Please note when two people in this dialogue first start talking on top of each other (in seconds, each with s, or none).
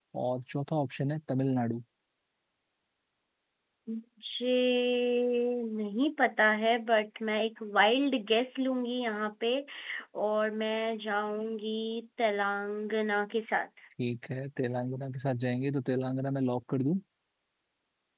none